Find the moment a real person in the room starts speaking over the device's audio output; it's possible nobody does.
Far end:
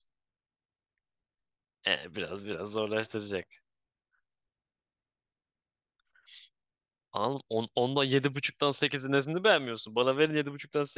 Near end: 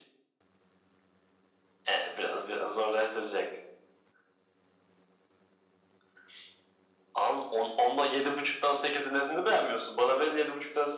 none

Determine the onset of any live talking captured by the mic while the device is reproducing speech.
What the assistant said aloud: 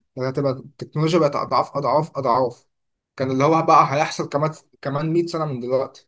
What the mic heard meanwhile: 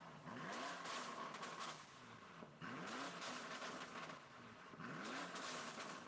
none

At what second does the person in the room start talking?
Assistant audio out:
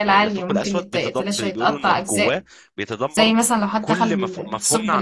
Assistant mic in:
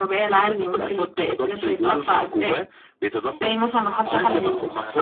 4 s

